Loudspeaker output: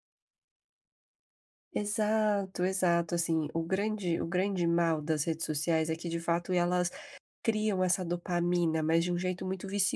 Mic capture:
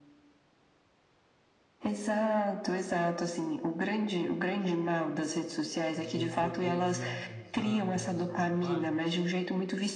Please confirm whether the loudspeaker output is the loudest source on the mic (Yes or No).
Yes